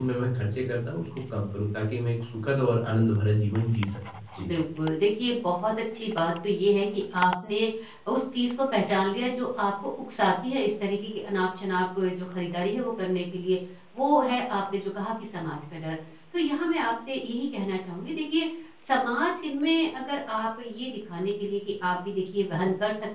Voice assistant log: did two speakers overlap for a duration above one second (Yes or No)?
No